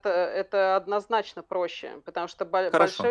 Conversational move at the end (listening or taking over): listening